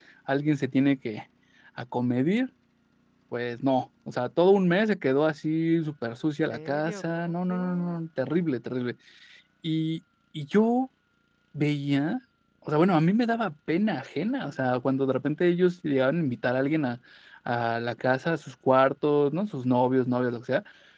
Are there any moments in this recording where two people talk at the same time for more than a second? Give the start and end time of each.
6.5-7.9

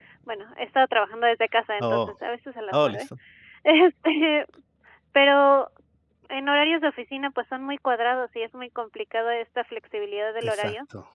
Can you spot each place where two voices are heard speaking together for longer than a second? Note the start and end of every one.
none

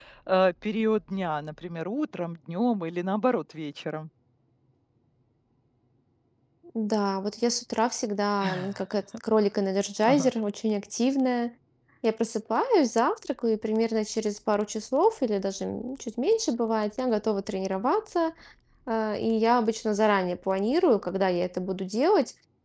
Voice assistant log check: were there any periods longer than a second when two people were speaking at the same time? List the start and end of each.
none

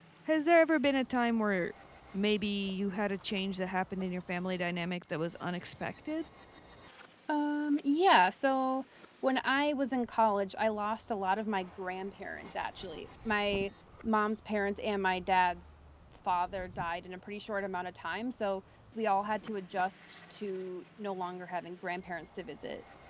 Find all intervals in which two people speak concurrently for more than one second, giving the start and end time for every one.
none

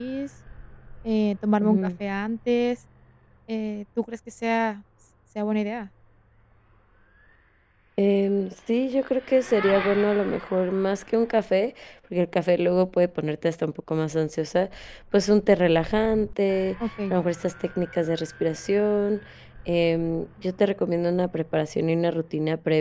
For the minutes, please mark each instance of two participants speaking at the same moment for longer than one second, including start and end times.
none

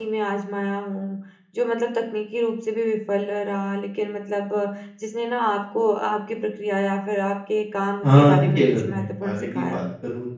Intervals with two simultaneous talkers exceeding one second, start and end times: 8.0-9.8

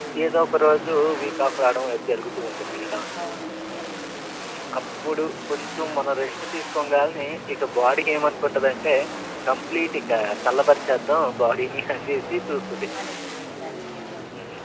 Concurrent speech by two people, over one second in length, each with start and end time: none

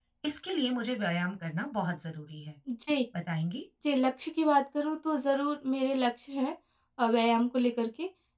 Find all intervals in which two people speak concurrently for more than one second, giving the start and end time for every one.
none

